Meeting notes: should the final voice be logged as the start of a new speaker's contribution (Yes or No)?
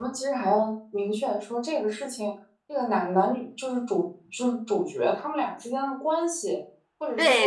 Yes